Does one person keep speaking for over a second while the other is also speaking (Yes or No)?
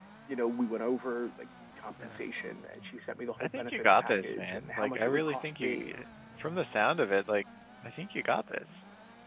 Yes